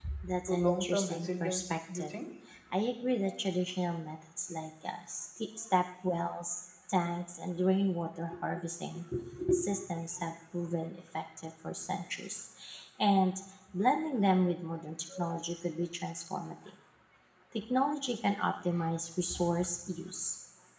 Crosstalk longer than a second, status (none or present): present